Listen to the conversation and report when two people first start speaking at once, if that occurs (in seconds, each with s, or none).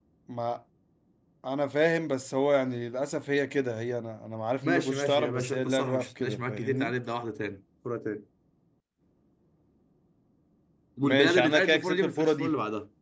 4.6 s